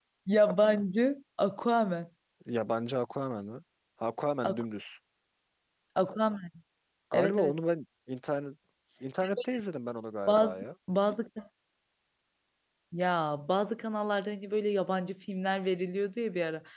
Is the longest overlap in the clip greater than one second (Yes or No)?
No